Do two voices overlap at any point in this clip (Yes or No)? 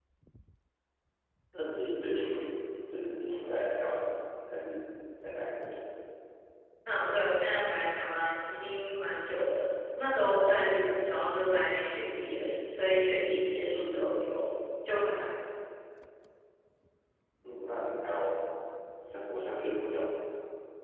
No